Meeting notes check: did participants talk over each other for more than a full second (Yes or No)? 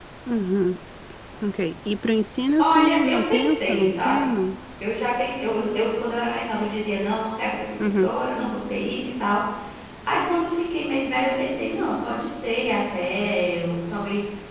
Yes